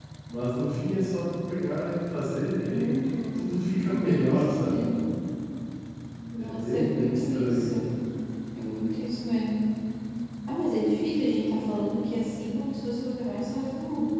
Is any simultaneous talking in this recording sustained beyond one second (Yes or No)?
Yes